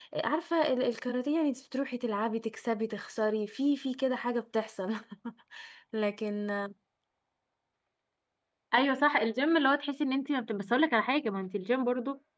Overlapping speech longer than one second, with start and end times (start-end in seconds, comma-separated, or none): none